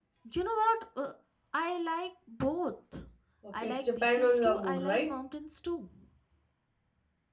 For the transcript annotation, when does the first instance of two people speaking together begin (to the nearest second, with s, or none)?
4 s